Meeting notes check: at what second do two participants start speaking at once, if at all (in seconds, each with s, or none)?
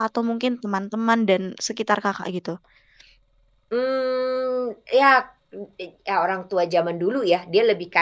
none